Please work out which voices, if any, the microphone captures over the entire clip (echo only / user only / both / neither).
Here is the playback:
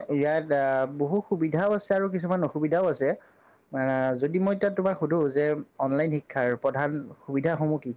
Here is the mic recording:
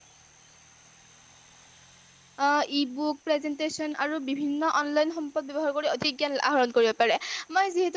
user only